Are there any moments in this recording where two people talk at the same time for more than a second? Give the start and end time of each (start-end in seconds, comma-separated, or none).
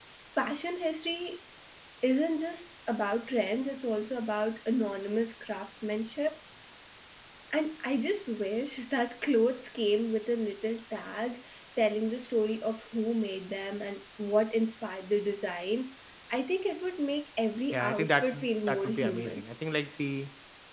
17.7-19.4